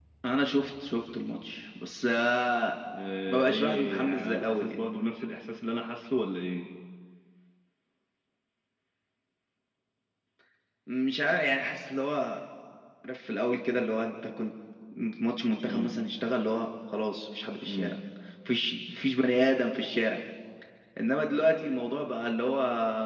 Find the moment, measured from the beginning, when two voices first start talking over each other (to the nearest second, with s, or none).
3 s